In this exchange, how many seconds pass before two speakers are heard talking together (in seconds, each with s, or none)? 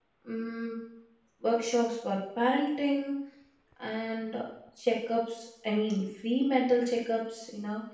none